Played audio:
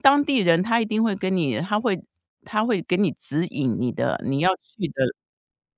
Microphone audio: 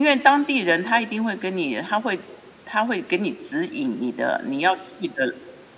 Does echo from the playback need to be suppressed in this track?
Yes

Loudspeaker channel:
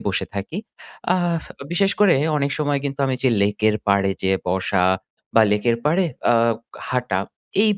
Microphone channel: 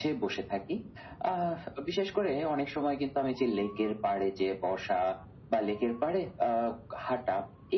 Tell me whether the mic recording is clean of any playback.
No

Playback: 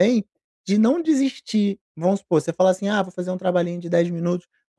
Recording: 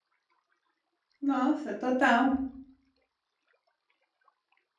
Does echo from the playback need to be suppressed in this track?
No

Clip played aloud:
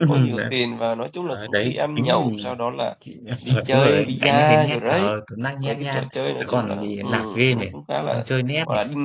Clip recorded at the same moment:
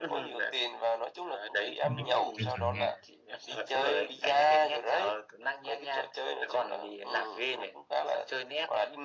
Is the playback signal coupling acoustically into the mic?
Yes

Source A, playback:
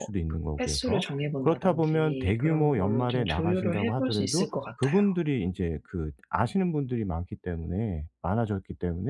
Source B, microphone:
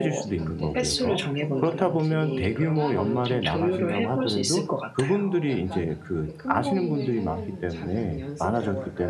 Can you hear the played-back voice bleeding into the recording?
Yes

